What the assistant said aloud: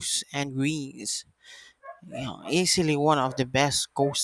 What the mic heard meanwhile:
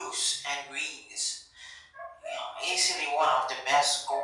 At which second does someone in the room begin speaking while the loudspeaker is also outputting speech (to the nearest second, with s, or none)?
none